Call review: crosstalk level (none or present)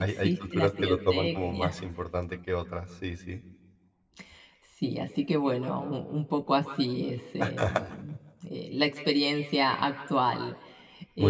present